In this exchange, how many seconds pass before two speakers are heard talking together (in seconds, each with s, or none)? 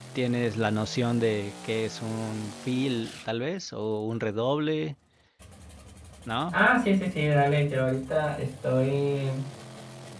none